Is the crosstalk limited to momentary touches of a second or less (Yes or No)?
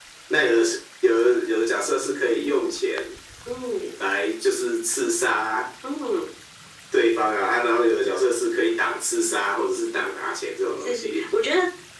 Yes